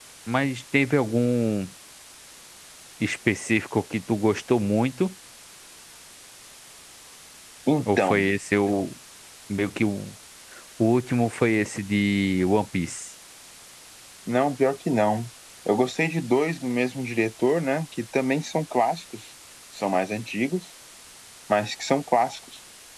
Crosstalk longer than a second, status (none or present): none